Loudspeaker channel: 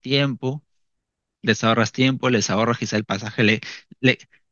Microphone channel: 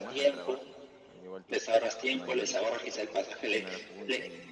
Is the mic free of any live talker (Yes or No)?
No